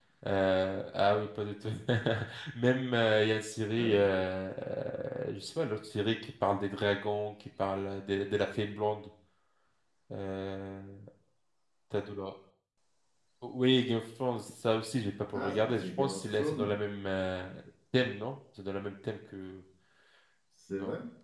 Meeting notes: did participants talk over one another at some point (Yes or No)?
Yes